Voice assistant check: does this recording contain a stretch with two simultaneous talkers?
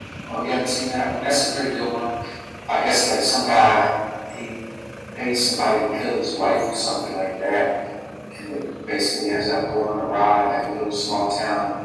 No

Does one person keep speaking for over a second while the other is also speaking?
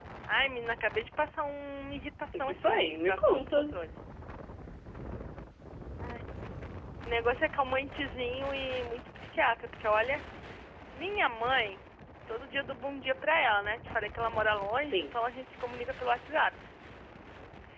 Yes, from 2.4 s

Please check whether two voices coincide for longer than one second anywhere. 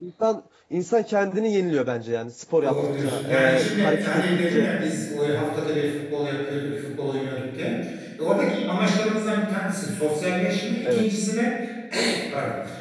Yes, from 2.6 s

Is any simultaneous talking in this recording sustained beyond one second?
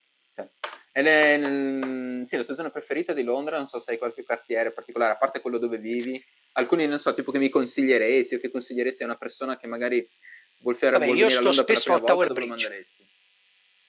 Yes, from 10.9 s

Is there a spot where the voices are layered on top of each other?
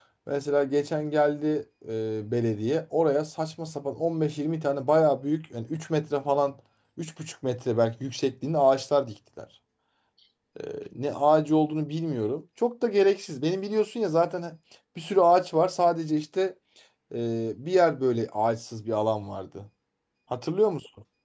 No

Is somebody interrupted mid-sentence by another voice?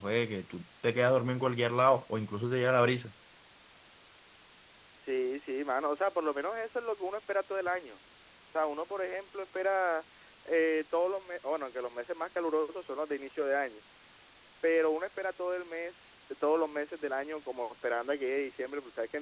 No

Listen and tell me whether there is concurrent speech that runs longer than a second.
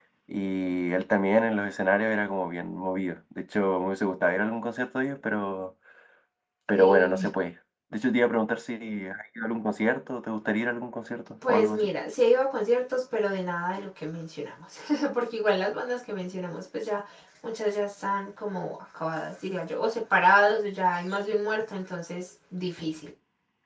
No

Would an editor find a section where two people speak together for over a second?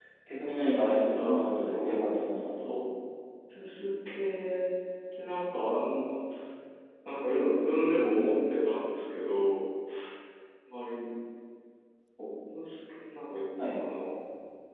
Yes, from 0.6 s

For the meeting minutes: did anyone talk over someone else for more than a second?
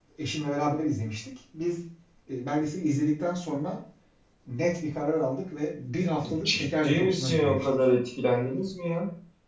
Yes, from 6.2 s

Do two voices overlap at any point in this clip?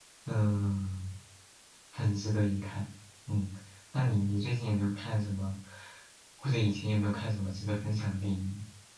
No

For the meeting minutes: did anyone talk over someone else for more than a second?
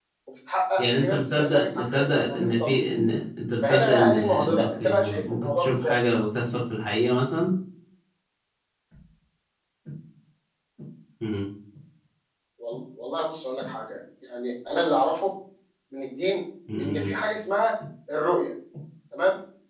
Yes, from 0.8 s

